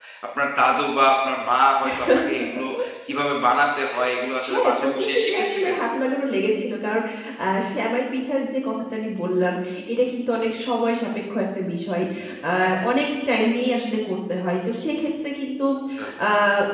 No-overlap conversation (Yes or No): No